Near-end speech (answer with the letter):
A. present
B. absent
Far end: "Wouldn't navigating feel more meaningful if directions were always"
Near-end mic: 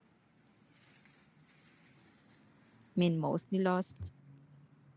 A